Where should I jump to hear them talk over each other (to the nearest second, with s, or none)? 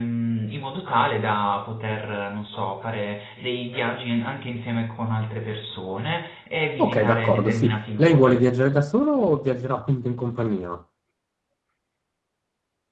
7 s